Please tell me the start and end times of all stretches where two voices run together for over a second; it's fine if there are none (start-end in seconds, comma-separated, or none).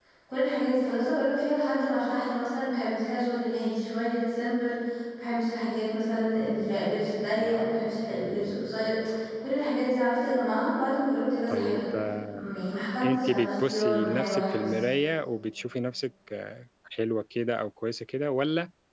13.0-14.7